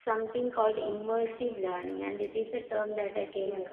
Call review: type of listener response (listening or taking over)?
taking over